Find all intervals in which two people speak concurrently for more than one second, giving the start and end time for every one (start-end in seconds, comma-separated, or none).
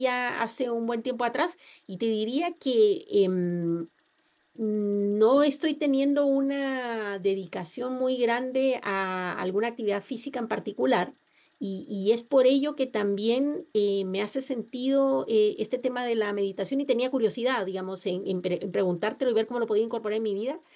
none